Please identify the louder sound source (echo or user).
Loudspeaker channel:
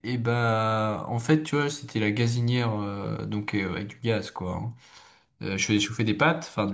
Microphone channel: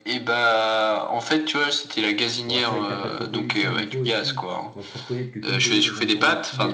echo